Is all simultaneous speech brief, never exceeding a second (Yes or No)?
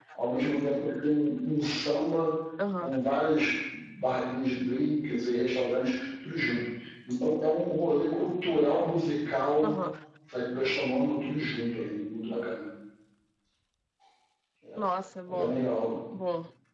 Yes